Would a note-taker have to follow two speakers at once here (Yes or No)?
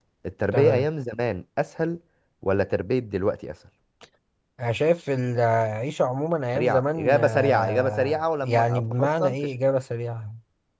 Yes